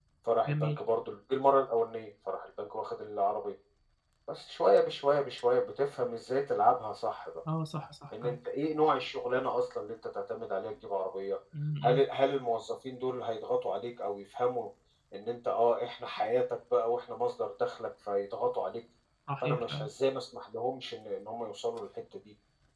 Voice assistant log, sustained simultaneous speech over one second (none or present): none